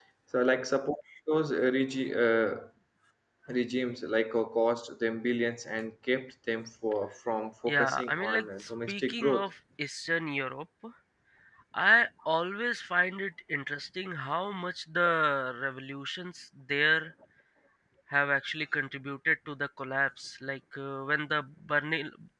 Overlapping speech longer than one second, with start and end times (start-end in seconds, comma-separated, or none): 7.7-9.5